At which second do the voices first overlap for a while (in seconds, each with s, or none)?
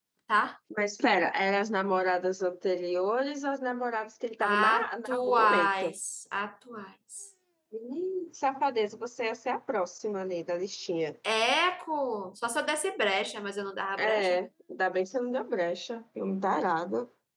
4.5 s